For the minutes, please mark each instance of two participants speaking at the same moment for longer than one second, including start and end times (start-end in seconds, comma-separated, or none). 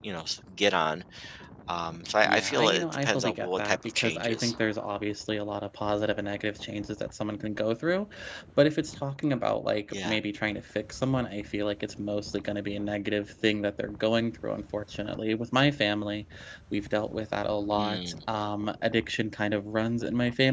2.2-4.5